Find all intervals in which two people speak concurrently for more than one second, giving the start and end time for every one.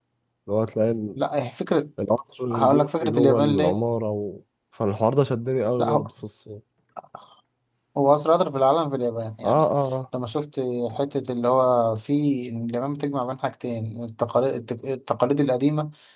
2.5-3.8

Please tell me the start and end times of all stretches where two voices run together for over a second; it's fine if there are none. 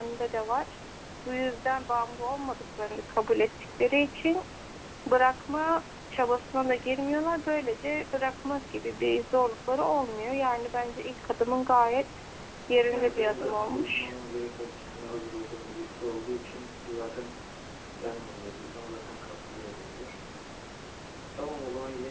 12.9-14.1

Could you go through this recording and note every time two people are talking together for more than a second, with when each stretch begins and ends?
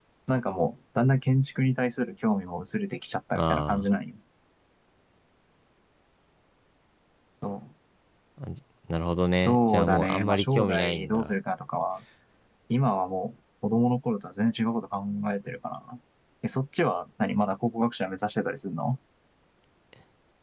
9.4-11.3

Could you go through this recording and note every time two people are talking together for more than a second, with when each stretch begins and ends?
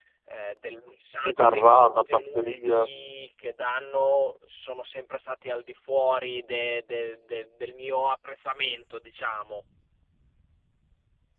1.2-2.9

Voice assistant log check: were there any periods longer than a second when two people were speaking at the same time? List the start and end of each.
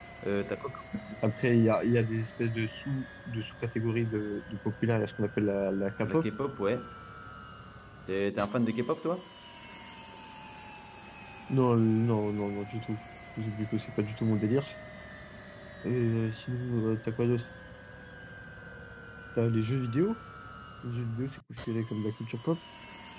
none

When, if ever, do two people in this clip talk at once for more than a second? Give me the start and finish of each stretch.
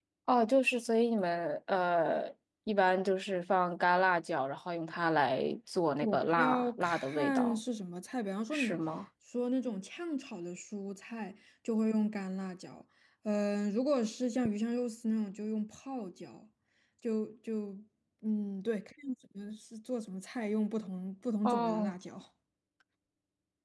6.0-7.6

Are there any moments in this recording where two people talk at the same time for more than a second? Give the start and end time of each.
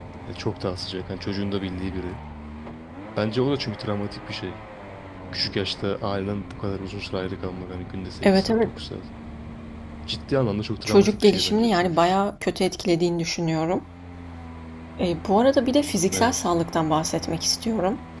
10.8-12.2

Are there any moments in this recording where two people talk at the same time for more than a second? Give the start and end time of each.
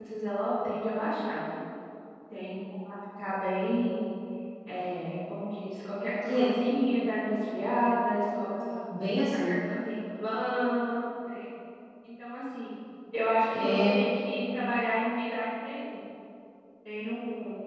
none

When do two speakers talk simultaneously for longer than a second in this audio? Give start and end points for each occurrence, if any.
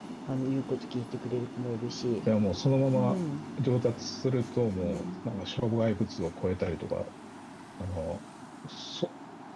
none

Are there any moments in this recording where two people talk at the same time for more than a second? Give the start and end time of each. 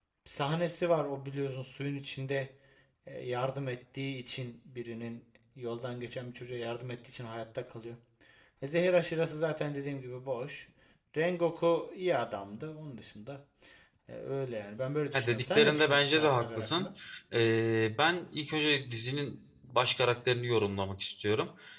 15.1-16.9

